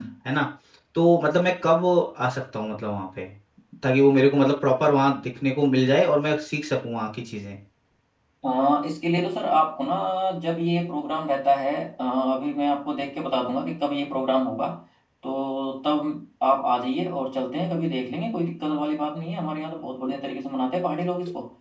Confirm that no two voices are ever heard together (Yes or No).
Yes